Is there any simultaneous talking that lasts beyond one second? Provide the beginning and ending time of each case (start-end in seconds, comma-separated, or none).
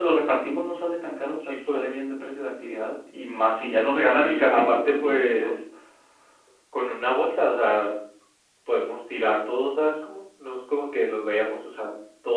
4.1-5.5